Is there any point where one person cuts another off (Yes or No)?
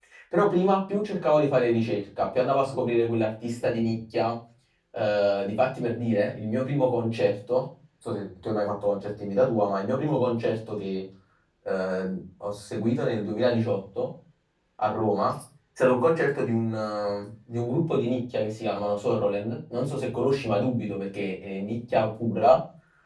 No